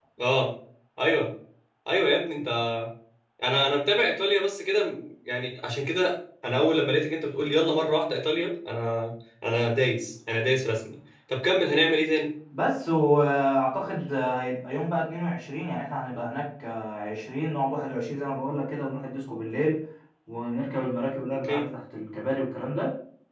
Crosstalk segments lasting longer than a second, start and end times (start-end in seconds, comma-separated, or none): none